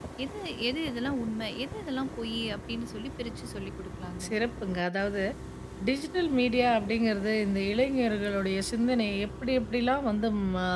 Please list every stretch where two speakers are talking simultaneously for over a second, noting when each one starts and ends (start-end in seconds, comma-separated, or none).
none